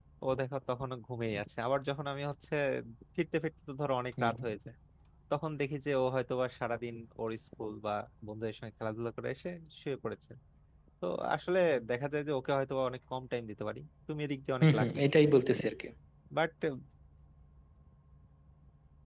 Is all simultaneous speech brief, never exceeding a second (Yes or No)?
Yes